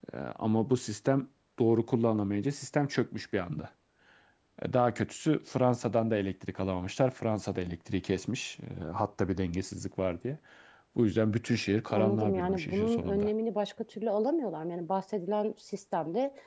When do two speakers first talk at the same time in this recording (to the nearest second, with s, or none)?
12 s